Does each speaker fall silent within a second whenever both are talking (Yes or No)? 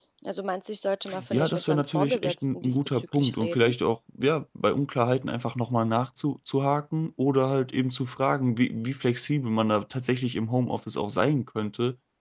No